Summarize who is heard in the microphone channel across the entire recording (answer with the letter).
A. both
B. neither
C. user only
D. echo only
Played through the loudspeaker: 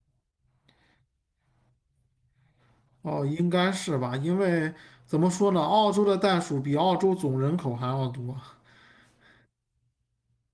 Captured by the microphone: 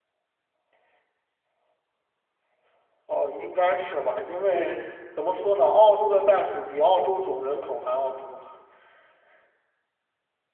A